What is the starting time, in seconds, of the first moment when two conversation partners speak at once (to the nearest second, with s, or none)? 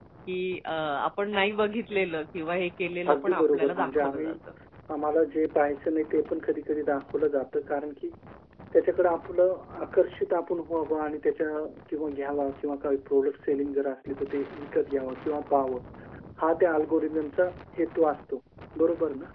3 s